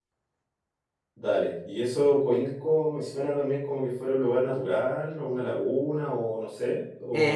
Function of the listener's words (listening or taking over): taking over